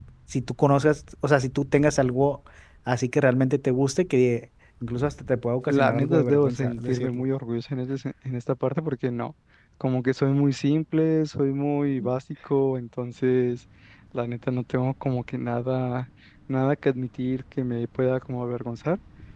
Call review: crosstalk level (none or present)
present